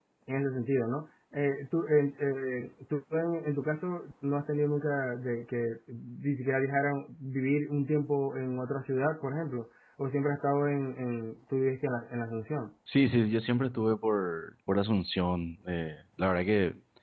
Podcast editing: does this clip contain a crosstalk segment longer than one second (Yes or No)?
No